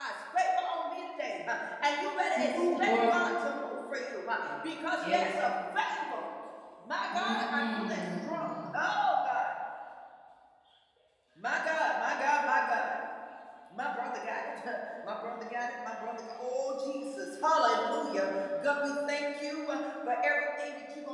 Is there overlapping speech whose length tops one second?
Yes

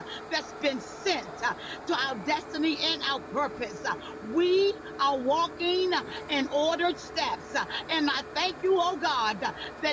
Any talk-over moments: No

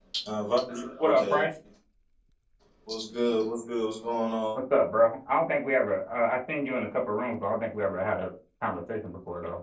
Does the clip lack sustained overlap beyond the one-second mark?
Yes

